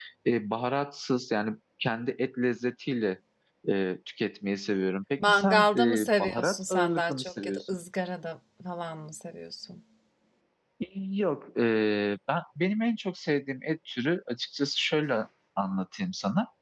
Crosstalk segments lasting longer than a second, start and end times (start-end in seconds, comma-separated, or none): 5.3-7.8